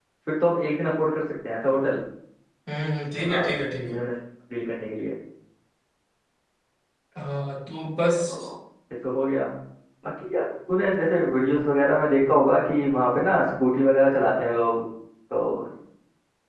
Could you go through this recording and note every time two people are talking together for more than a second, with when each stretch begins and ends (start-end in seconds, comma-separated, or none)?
none